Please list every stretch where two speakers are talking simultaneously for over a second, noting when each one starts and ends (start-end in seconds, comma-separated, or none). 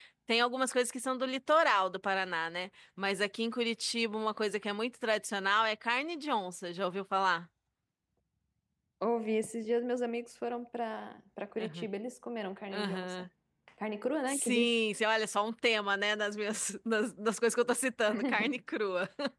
none